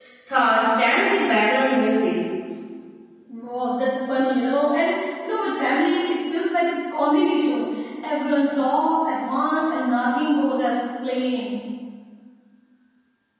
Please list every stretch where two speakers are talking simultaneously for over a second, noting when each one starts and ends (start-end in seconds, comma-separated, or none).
none